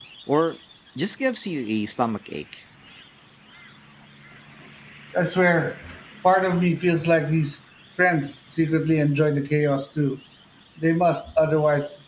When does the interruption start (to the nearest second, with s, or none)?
none